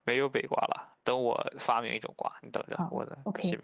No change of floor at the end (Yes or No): No